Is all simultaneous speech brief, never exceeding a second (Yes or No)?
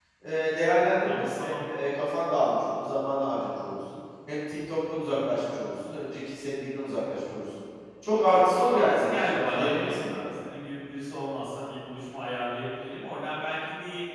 No